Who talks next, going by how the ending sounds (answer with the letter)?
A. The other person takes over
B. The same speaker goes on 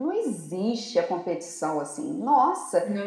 B